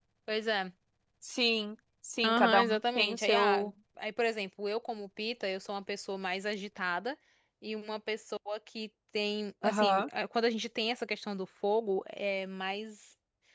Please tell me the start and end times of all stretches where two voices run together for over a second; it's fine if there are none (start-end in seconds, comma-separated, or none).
2.2-3.7